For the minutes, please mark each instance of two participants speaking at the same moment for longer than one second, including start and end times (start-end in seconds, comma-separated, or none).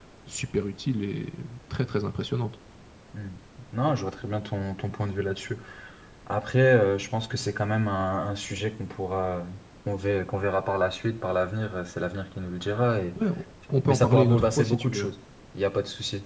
13.9-15.1